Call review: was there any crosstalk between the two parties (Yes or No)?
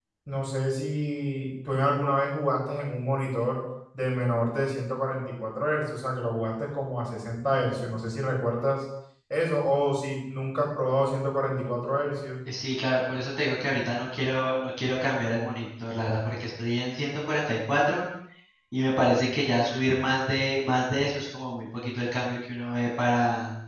No